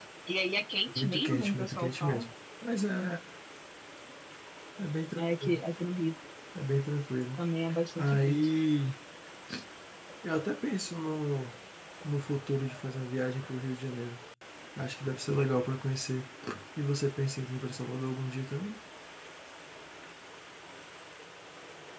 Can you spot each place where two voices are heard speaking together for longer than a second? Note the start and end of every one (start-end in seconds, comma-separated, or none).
0.9-2.2